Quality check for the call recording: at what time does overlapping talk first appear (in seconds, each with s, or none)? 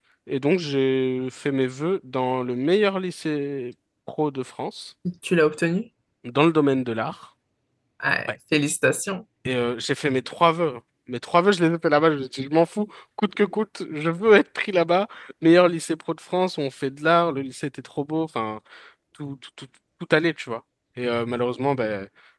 none